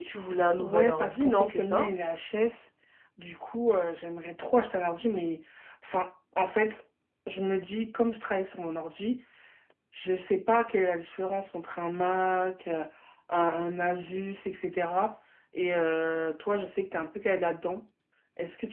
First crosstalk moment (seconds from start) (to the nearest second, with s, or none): 1 s